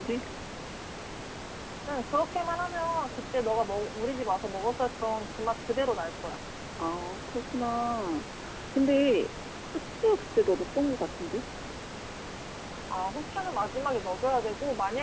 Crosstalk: none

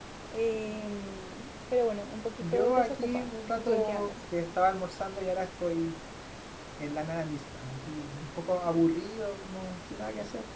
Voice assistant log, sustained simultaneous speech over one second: present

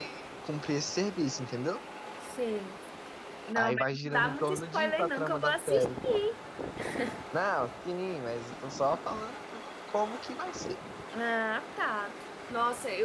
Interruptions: present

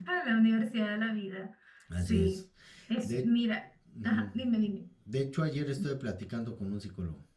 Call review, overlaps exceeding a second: none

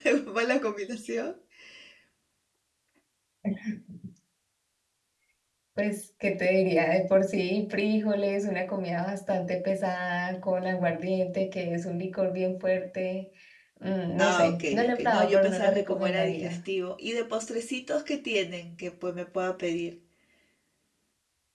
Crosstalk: present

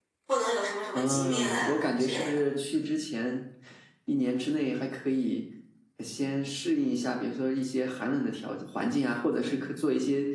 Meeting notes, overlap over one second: present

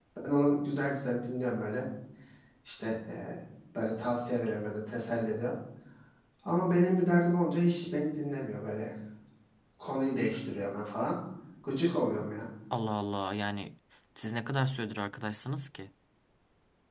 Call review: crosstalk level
none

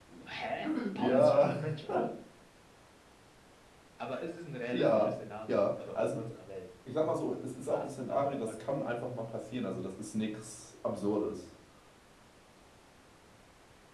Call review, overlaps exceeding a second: present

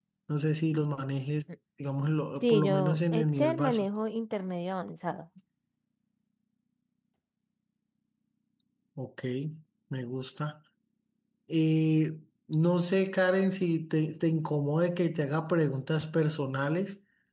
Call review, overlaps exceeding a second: present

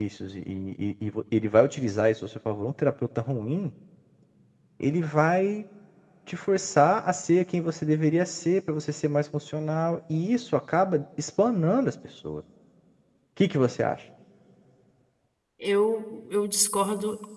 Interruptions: none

